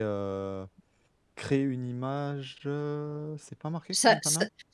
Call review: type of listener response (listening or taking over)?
taking over